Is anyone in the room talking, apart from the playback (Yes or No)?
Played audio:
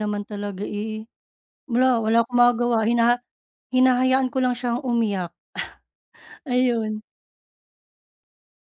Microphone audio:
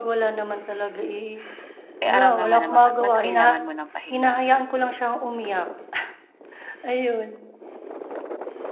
Yes